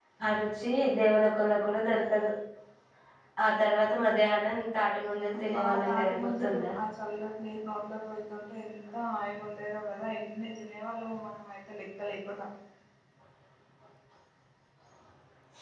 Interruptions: present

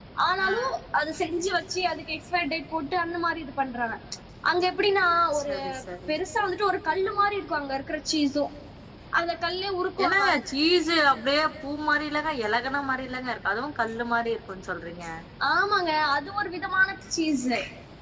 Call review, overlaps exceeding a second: none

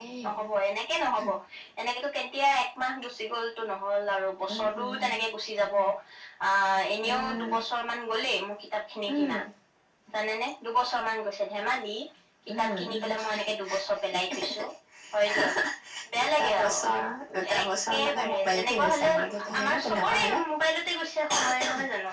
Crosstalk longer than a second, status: present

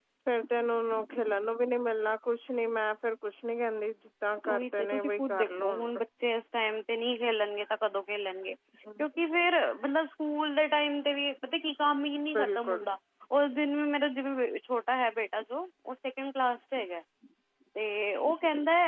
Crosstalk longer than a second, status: present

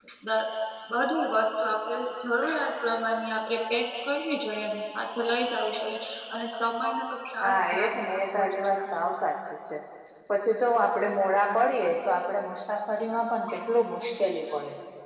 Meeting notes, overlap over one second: present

